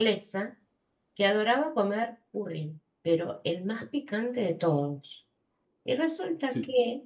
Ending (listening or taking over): listening